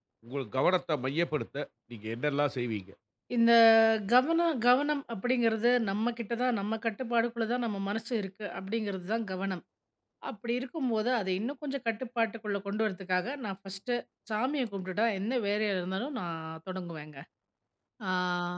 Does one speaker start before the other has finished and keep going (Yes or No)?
No